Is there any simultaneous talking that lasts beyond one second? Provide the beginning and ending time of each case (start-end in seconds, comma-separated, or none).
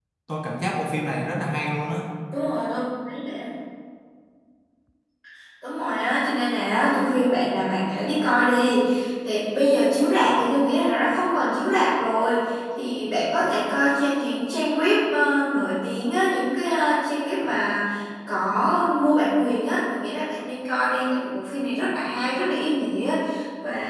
none